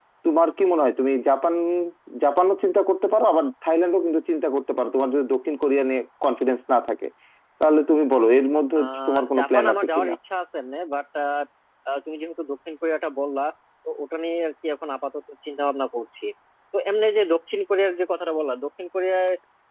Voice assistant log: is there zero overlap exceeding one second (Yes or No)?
No